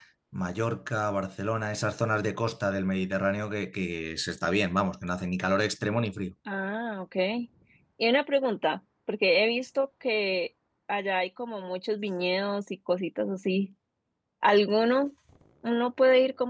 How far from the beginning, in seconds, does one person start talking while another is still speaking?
none

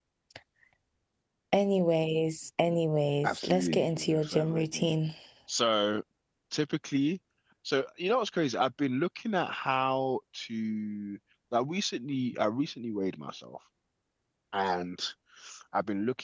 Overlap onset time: 3.2 s

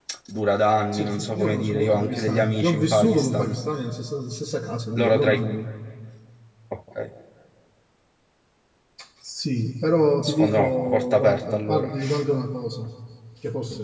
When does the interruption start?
0.9 s

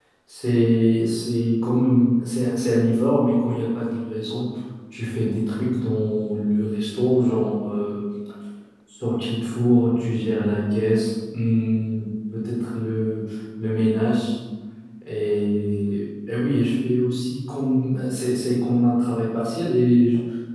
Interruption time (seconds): none

